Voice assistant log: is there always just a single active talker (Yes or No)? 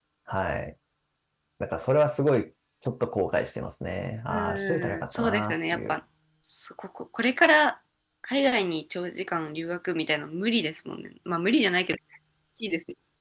No